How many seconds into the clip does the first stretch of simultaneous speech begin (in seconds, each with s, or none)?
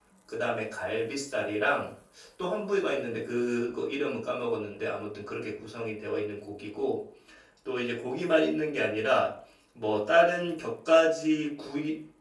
none